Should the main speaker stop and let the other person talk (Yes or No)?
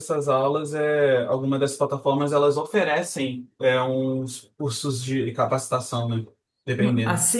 Yes